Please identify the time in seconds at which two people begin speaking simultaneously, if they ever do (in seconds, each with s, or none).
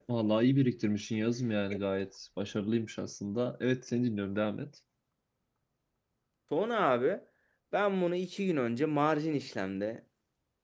none